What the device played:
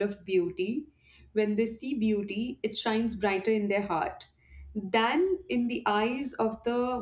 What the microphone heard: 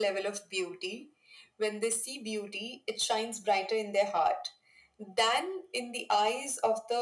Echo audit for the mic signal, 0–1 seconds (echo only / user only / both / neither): echo only